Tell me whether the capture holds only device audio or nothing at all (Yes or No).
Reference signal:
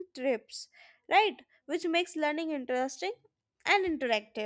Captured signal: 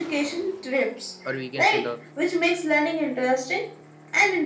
No